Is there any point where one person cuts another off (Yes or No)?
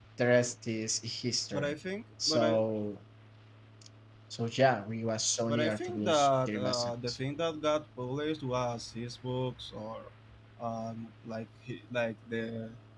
Yes